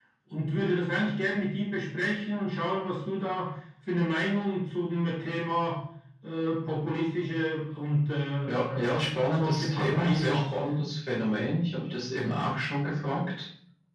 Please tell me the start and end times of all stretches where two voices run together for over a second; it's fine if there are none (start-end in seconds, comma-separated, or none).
8.5-10.6